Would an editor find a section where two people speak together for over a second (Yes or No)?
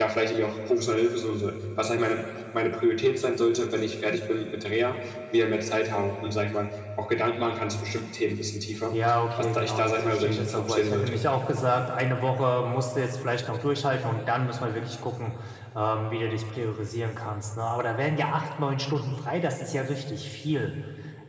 Yes